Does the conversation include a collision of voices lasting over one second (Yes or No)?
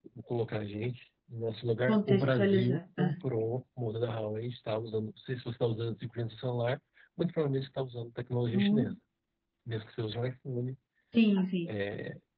Yes